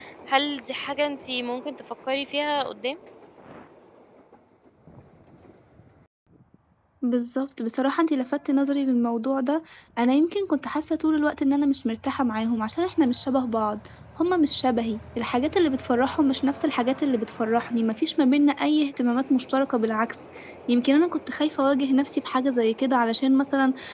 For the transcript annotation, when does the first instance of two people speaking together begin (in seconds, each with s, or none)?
none